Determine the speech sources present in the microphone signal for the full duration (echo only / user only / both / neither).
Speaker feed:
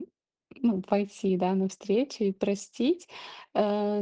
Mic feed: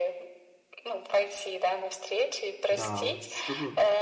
both